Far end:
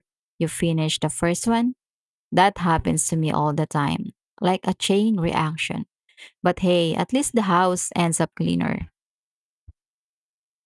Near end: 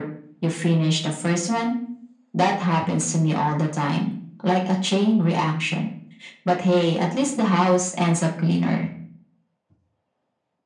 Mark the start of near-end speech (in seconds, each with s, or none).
none